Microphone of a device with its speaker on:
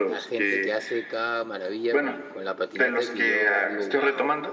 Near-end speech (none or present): present